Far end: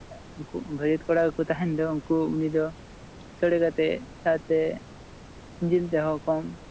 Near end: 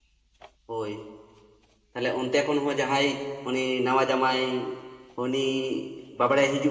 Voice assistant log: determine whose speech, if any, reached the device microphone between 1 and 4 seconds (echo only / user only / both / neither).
user only